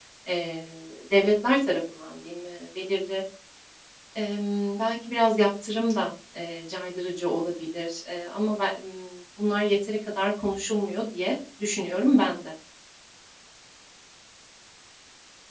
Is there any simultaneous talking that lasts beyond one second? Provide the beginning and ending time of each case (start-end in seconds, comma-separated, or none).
none